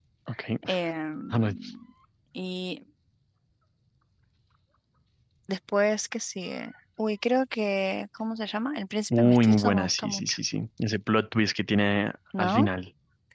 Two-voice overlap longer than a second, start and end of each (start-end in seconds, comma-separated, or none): 9.2-10.4